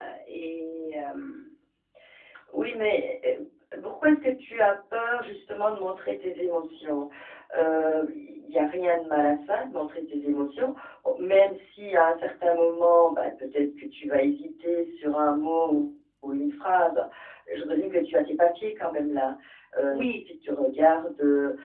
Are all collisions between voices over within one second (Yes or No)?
Yes